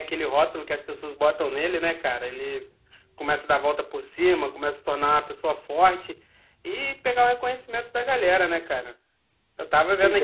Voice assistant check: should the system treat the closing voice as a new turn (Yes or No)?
No